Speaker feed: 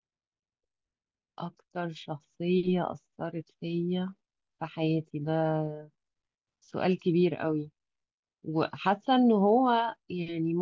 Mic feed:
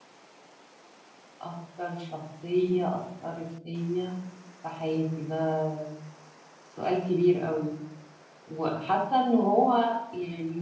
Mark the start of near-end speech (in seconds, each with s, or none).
none